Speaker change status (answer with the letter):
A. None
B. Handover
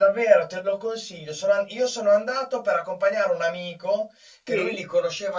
A